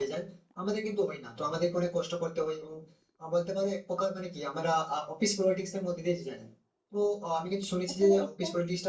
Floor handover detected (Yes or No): No